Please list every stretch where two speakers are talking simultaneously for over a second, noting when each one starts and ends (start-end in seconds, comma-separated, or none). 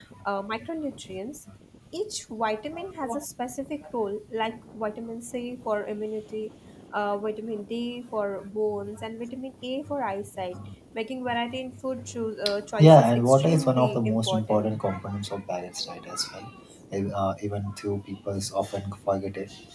12.8-14.7